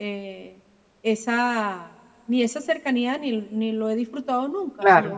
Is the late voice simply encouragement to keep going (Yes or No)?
Yes